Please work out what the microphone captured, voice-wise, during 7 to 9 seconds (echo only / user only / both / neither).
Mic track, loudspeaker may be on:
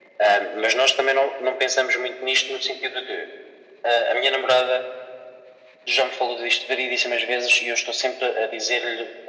echo only